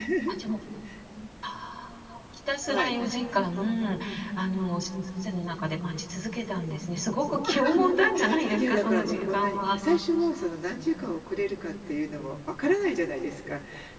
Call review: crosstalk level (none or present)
present